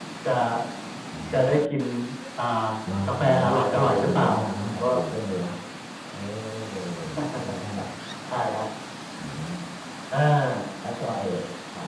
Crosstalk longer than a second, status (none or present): present